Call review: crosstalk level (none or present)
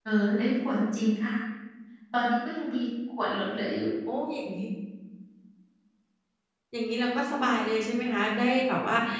none